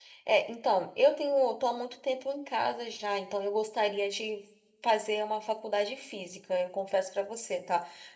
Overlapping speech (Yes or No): No